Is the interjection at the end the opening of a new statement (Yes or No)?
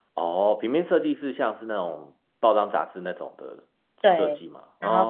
Yes